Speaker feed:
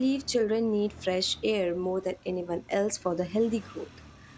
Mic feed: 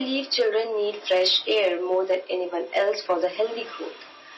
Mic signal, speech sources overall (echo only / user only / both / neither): echo only